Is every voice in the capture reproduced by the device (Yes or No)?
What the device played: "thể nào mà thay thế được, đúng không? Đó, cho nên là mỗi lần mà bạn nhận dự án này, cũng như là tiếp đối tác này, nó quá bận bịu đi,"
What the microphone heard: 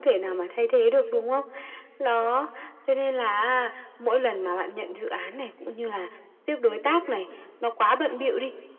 Yes